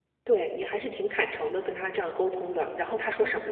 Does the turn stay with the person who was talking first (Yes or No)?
No